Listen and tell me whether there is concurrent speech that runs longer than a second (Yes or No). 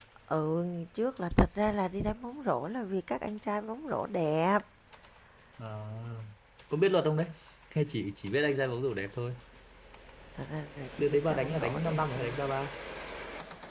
Yes